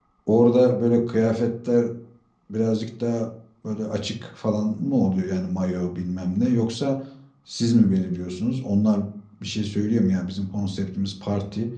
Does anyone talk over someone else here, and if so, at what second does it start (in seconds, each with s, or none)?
none